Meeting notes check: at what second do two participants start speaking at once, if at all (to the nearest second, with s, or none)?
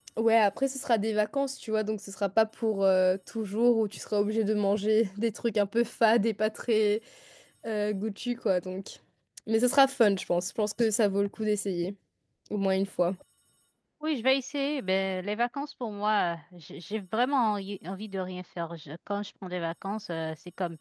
none